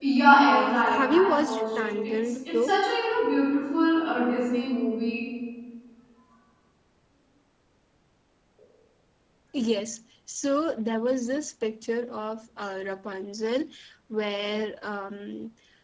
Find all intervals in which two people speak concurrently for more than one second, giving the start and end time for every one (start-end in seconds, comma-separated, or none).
0.6-2.7